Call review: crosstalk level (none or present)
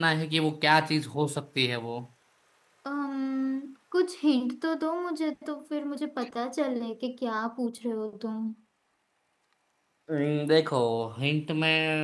none